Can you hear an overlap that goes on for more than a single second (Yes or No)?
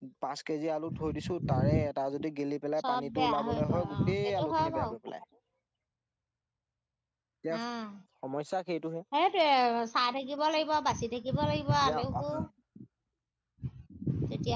Yes